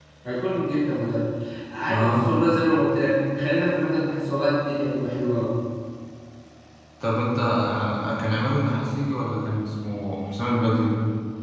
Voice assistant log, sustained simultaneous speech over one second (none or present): none